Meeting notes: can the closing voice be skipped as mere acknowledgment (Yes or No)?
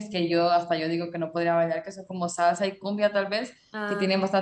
Yes